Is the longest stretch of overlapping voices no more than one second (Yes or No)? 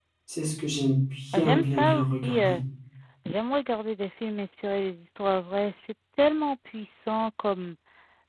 No